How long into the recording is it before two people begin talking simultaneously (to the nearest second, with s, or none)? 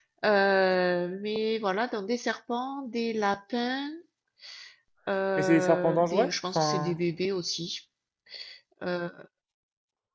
5 s